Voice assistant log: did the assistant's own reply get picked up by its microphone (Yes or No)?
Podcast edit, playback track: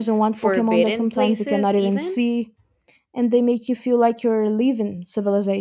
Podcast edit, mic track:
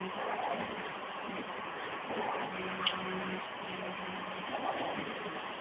No